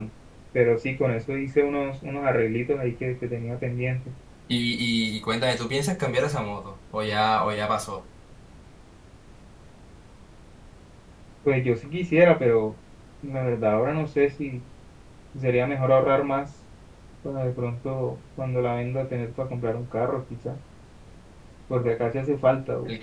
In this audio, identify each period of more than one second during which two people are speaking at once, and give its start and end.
none

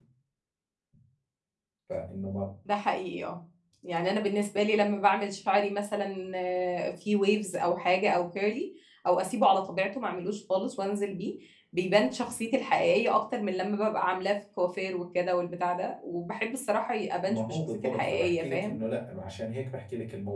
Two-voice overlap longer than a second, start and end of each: 17.3-18.8

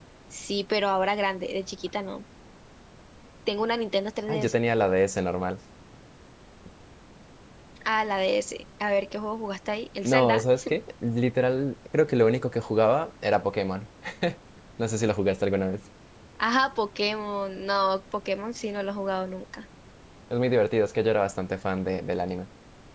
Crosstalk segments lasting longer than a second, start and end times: none

